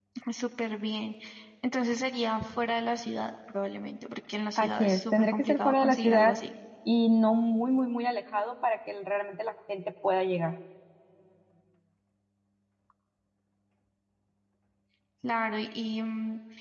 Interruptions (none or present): present